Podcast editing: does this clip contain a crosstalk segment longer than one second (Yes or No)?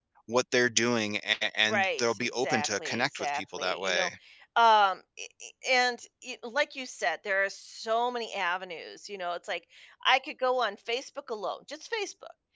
Yes